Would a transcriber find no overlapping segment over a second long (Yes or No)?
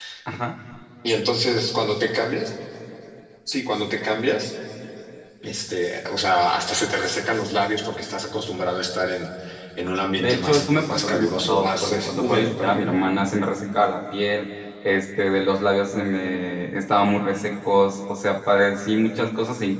No